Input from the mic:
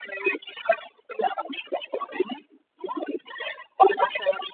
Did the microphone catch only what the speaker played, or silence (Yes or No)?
Yes